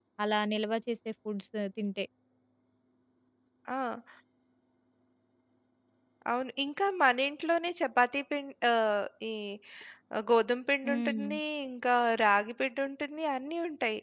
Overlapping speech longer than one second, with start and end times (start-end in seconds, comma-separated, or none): none